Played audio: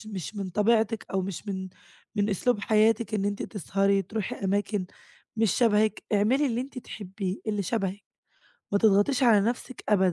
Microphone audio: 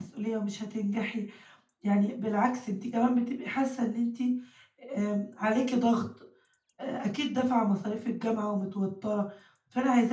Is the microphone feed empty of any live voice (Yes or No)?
No